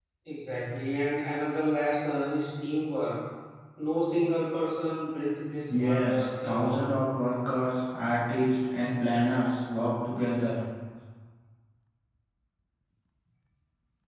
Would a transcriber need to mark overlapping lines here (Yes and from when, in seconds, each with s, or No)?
Yes, from 5.7 s